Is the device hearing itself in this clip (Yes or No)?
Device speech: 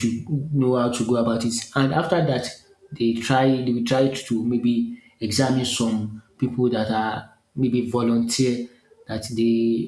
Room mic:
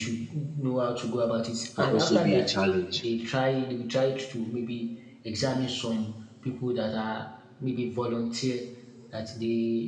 Yes